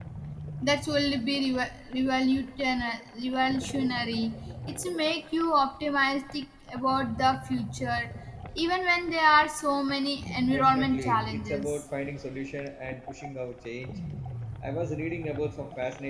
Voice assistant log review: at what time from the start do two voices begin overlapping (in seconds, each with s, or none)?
10.5 s